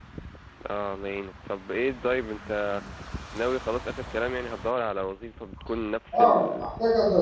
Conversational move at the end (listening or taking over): taking over